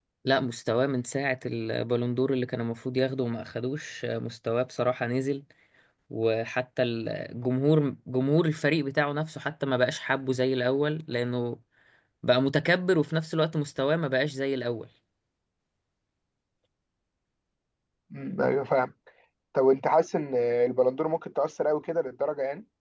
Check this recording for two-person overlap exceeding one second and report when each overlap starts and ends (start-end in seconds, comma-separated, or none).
none